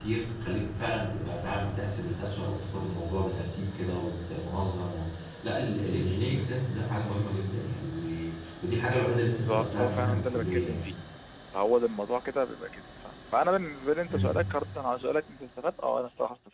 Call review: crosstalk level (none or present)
present